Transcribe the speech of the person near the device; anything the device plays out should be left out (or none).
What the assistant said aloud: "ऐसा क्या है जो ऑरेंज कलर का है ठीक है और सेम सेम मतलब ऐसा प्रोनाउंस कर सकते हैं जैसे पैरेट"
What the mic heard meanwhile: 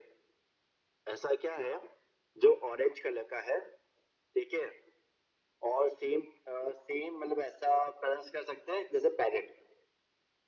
none